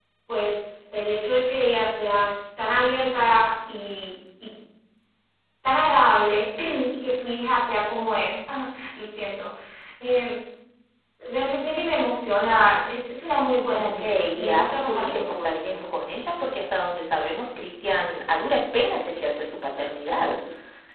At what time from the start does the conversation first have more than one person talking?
13.7 s

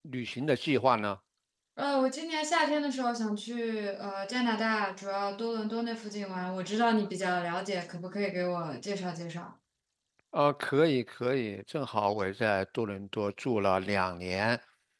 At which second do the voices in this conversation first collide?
none

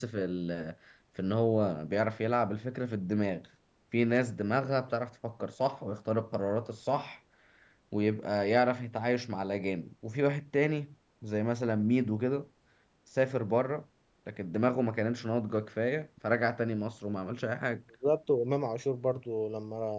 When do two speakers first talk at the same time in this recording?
none

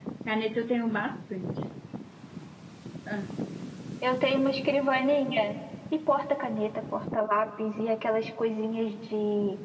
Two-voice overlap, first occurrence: none

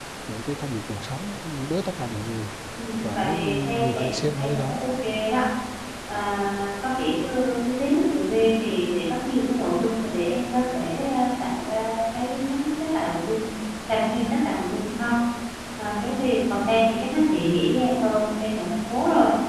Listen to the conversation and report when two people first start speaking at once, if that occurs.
3.0 s

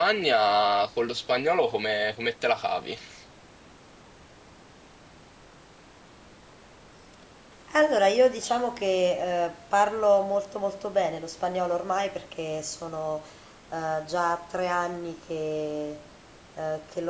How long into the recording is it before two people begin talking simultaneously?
none

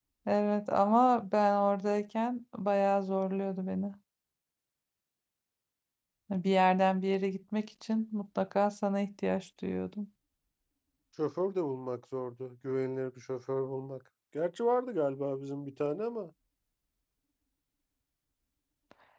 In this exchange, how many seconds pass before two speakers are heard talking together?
none

